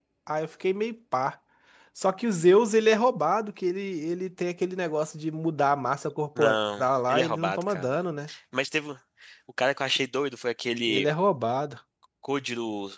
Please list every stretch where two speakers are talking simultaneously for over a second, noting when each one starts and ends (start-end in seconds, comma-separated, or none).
6.4-7.9